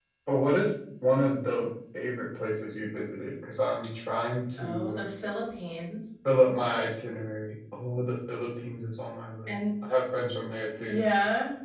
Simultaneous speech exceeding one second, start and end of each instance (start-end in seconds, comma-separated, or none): none